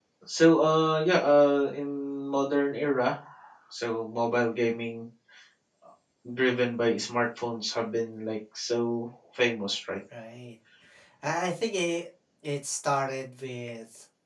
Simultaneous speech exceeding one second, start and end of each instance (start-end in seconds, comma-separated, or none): none